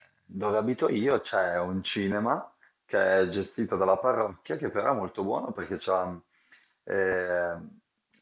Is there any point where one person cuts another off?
No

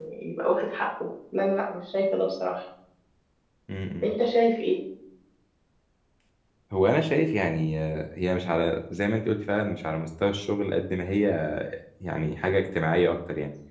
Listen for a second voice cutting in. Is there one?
No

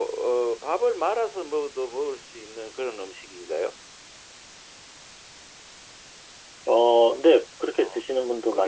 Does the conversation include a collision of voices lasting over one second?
No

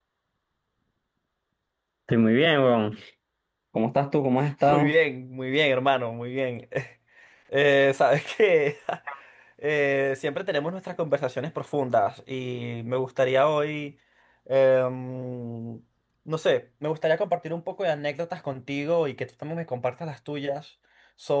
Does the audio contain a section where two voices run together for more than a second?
No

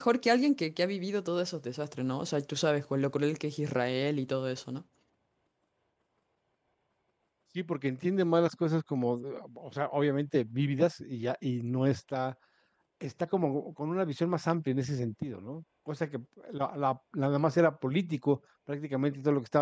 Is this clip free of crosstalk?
Yes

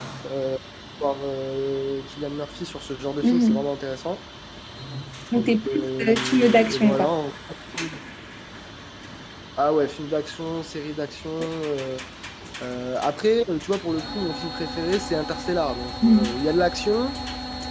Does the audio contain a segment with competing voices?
Yes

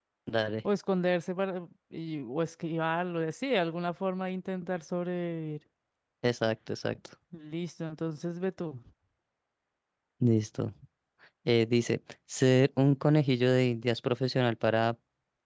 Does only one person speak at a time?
Yes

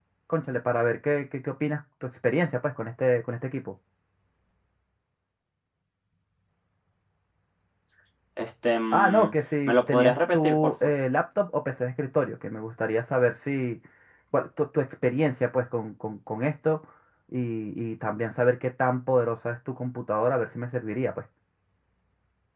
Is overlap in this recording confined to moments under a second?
No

